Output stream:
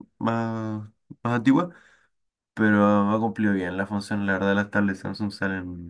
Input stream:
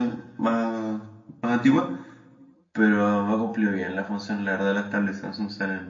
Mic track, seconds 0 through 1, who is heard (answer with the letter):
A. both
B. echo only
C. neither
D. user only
B